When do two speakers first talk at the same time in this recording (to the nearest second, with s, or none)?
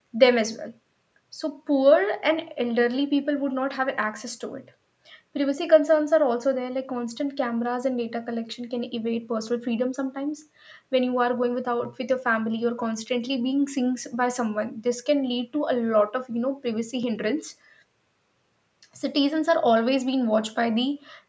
none